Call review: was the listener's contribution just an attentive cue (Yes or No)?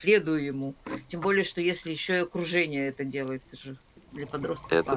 No